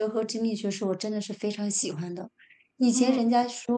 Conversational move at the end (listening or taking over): listening